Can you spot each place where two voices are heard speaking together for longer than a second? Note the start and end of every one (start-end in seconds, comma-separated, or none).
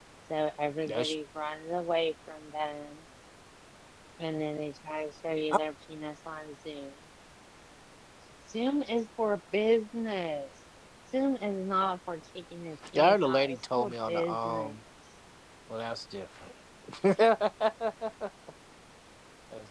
12.9-14.7